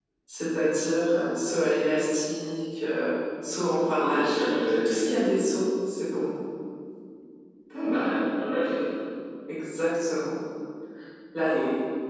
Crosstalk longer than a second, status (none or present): present